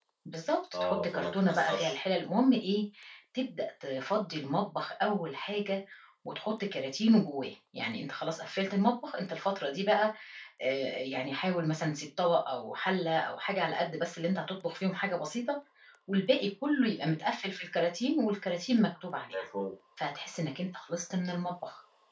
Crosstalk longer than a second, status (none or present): present